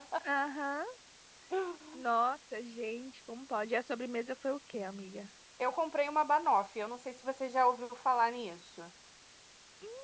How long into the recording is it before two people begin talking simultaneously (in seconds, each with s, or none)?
none